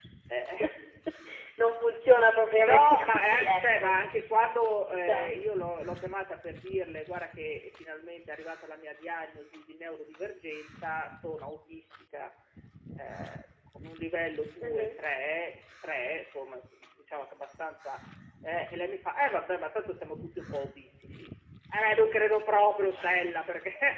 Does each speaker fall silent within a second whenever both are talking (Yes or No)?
No